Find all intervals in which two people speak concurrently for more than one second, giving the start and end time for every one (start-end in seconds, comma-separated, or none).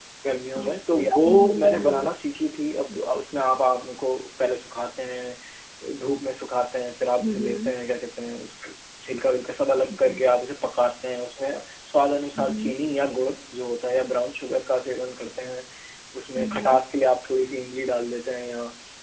0.6-2.1